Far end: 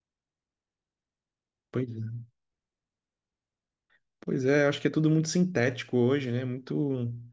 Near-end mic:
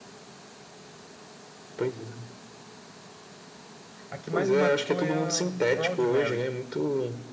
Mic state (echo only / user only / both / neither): both